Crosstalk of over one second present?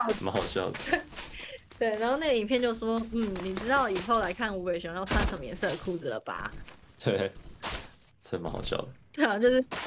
No

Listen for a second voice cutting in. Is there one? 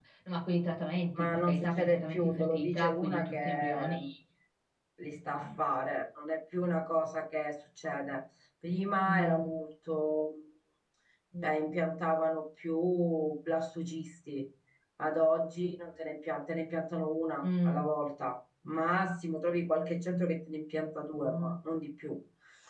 Yes, from 1.2 s

